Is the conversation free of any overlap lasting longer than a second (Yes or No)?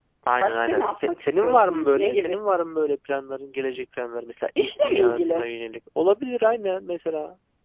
No